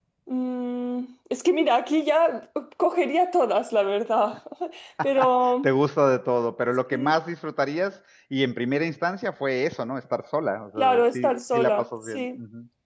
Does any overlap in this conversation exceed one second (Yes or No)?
Yes